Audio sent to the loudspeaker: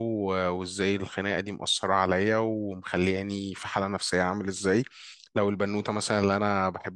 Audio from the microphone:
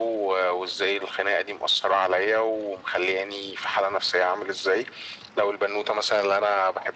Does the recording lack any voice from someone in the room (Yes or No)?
Yes